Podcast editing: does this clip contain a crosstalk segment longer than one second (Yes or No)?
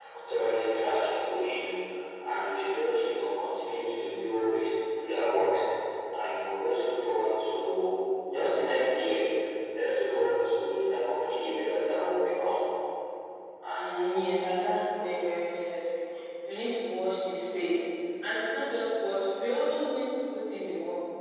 Yes